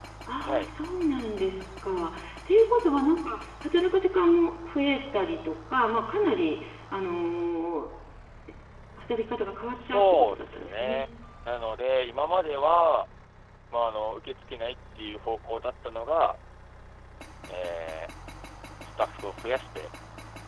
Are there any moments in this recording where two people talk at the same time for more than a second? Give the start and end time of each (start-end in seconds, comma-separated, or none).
9.7-11.0